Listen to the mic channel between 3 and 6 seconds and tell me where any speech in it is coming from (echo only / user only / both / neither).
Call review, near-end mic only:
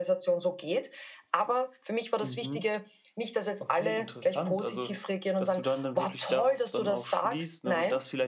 echo only